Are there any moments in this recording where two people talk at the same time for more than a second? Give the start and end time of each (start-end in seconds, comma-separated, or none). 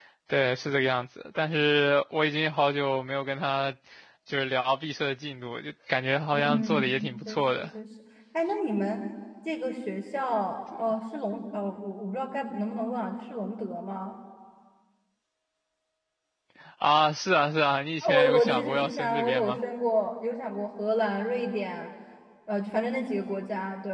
6.3-7.7, 18.0-19.6